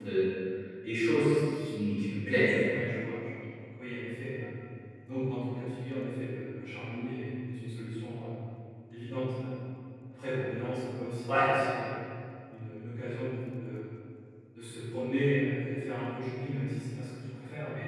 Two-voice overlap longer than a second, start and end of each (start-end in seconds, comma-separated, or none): none